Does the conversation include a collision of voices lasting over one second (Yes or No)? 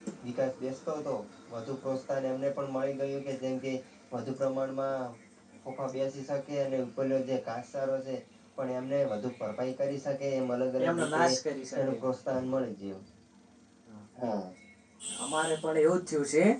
No